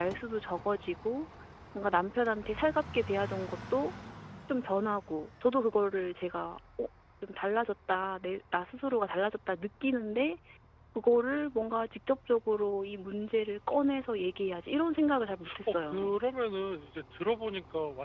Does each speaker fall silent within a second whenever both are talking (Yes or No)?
No